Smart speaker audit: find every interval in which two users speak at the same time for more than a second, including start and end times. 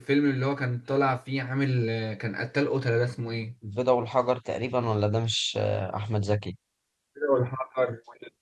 none

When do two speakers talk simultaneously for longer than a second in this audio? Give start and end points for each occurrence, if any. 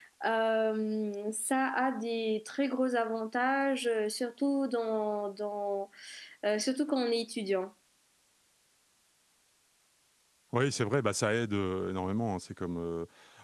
none

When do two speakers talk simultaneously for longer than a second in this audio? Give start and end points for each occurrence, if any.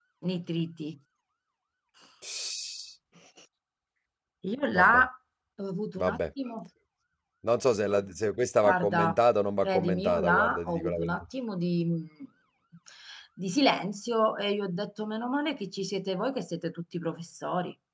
9.6-11.2

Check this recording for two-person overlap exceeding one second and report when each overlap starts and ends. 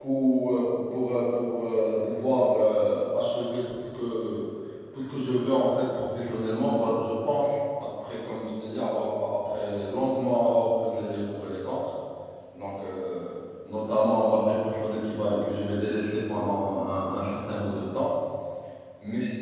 none

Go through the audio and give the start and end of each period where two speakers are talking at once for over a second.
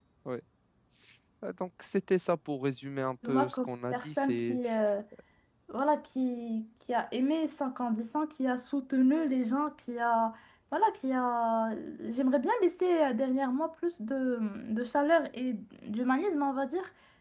3.2-4.6

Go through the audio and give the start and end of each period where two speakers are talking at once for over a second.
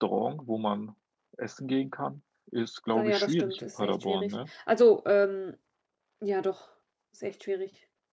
3.0-4.3

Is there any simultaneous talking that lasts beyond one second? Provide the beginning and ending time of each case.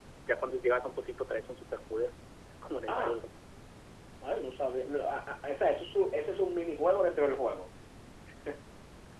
none

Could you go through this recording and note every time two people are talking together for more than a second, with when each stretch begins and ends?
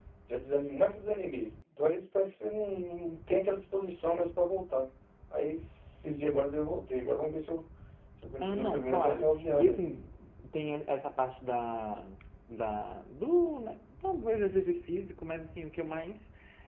8.4-9.8

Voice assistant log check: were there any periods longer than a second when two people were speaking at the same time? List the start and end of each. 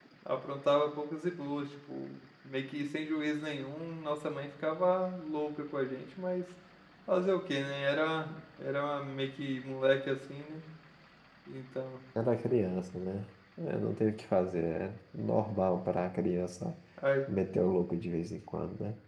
none

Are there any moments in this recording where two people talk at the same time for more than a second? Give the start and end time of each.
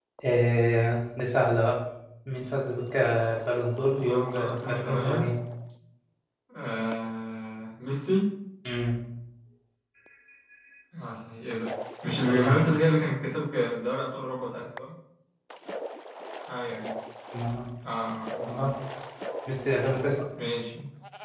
4.0-5.3

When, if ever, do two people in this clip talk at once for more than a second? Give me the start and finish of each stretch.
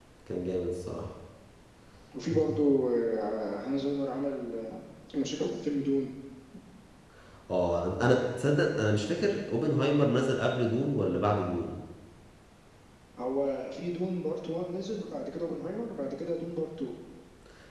none

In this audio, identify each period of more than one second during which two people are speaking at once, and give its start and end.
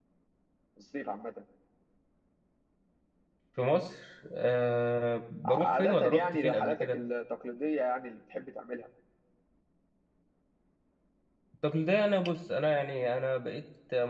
5.5-7.0

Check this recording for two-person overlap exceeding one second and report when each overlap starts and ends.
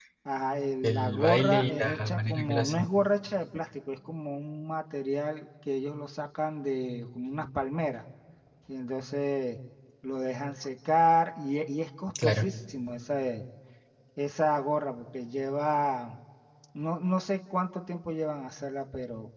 0.8-2.9

